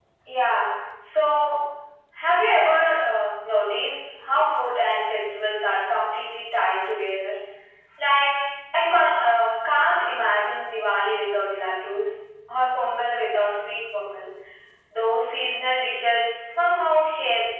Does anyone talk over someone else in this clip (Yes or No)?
No